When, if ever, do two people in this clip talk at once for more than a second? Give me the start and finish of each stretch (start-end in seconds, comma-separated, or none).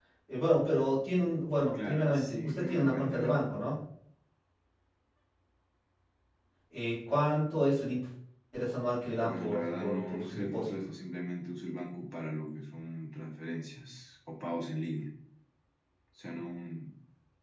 1.7-3.6, 9.2-10.7